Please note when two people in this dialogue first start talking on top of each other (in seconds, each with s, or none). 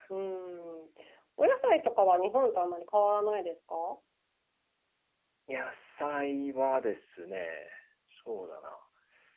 none